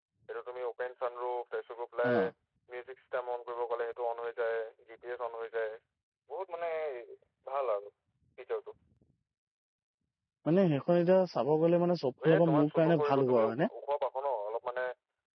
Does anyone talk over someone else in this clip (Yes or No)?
Yes